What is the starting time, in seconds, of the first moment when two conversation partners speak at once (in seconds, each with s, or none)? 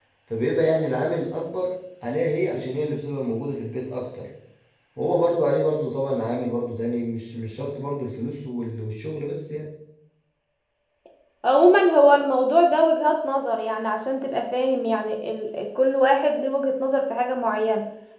none